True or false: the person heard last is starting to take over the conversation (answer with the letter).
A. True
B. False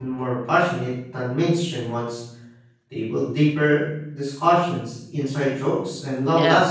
A